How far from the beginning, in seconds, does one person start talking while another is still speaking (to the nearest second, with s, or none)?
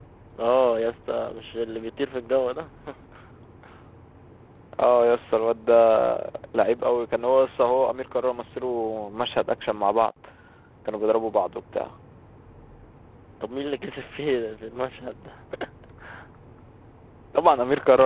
none